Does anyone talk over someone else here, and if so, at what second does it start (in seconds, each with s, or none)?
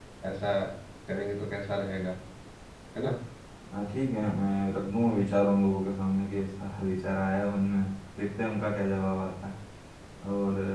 none